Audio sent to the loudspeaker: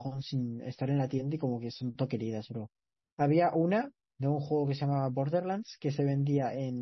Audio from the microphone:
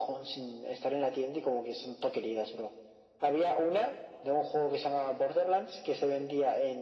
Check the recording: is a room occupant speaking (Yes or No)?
No